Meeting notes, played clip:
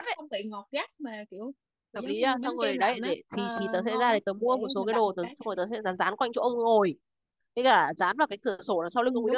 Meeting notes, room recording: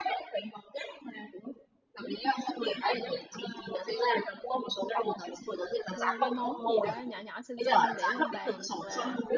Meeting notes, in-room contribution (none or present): present